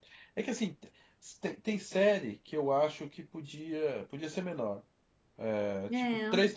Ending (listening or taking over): listening